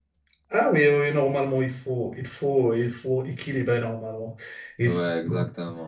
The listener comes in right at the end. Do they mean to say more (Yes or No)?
Yes